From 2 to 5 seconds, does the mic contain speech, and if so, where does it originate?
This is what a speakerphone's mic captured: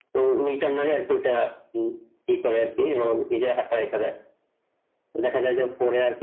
echo only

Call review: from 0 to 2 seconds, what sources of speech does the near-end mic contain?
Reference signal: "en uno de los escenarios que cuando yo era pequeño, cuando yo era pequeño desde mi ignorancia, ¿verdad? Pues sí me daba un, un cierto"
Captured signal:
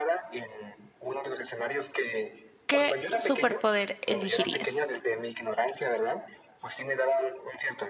echo only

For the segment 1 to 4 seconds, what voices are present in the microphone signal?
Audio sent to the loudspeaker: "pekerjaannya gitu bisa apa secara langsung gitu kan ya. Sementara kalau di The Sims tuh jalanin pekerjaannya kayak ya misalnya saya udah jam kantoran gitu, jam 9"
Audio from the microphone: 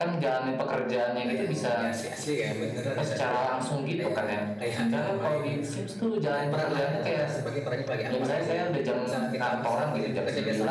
both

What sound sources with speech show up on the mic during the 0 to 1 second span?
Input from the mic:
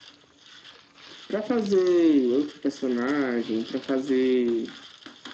neither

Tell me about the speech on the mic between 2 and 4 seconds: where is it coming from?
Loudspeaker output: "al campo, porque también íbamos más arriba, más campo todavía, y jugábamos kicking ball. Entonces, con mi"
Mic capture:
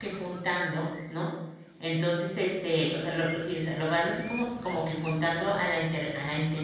user only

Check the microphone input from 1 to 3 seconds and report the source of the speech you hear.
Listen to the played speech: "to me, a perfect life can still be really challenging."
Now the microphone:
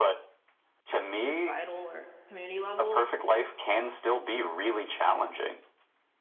both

